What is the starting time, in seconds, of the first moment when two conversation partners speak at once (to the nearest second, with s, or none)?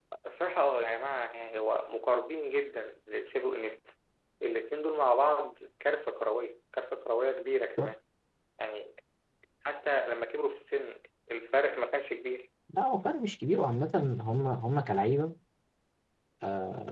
none